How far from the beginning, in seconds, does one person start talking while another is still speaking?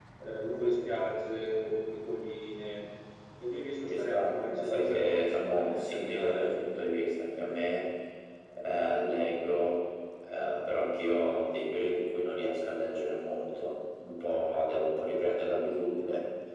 3.9 s

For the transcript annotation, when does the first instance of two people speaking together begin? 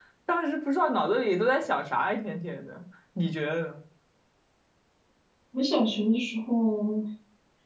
none

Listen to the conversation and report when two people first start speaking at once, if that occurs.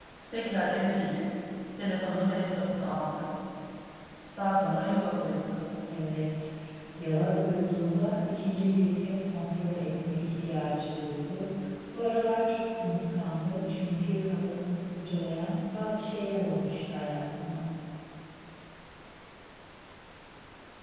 none

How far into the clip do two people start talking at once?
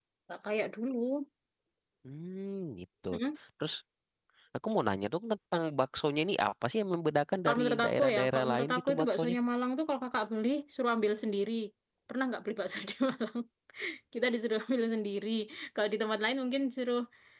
7.5 s

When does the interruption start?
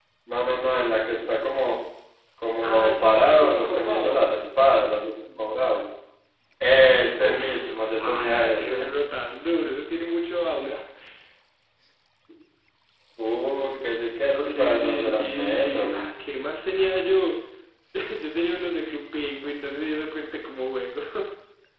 2.6 s

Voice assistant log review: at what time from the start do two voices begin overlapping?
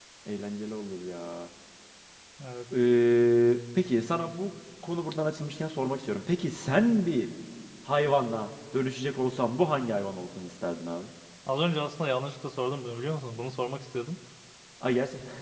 none

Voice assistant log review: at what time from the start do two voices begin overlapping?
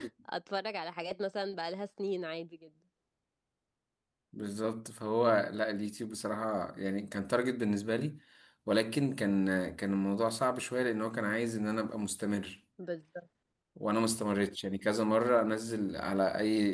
none

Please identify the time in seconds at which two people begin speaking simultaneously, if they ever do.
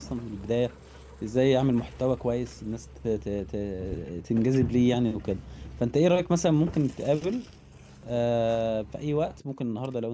none

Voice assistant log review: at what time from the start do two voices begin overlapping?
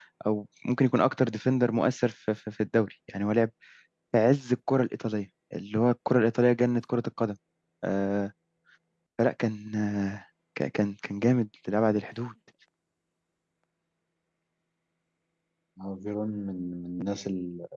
none

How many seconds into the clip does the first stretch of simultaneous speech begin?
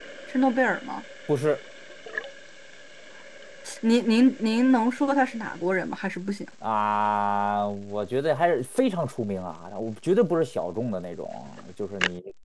none

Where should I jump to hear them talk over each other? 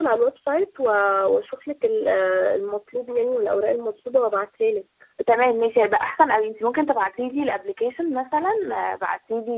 none

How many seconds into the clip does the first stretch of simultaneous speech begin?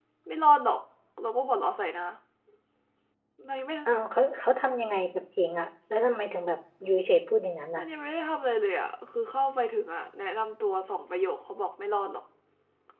none

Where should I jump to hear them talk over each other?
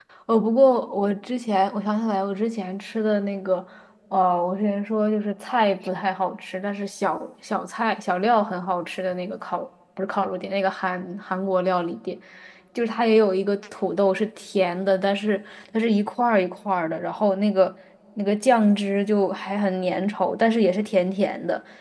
none

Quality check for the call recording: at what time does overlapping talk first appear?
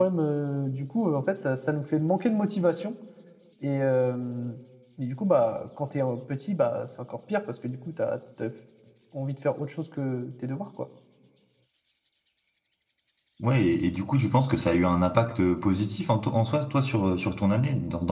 none

